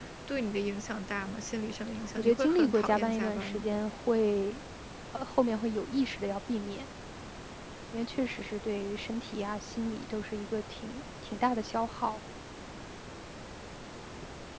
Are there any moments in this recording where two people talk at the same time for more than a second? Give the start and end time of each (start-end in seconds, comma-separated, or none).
2.2-3.7